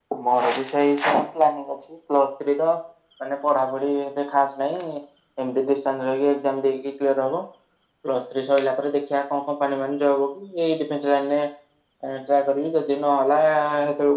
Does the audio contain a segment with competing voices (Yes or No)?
No